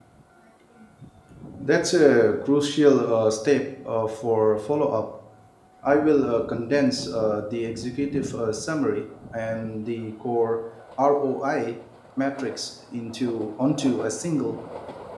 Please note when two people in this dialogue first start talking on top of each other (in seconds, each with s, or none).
none